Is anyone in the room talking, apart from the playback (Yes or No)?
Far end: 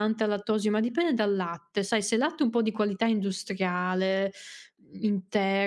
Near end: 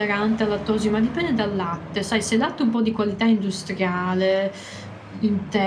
No